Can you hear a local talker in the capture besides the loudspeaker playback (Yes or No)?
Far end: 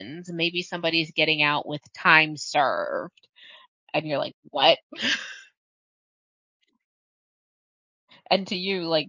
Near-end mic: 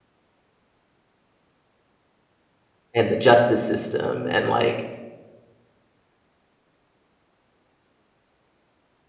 Yes